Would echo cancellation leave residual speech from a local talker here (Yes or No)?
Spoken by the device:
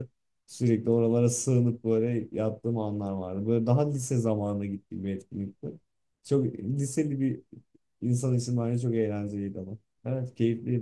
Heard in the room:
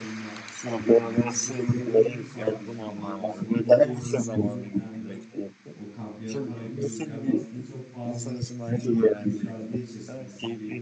Yes